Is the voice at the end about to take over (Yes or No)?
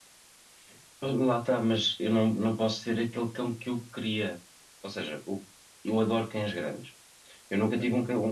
No